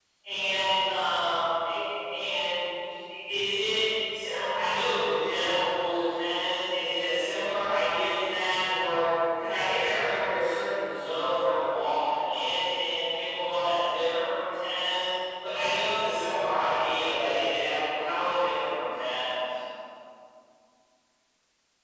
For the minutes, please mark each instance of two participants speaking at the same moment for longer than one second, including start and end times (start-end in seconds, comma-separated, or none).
none